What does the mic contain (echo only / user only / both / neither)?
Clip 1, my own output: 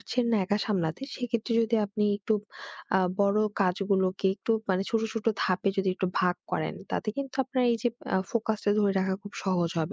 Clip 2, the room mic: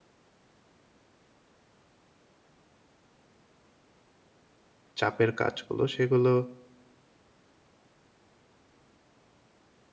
user only